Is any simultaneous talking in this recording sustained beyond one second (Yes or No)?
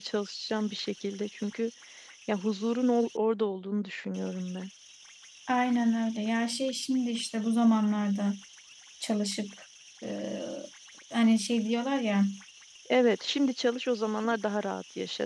No